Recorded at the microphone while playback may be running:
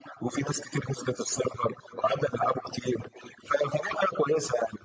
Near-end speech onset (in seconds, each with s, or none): none